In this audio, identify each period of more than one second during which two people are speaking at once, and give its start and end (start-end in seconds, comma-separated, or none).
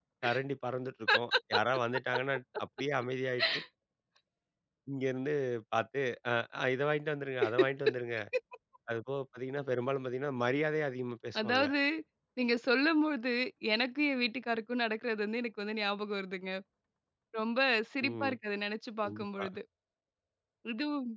none